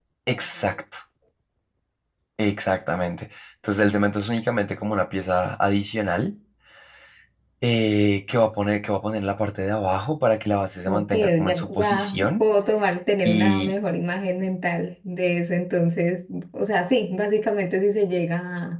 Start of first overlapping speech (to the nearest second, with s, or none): 11 s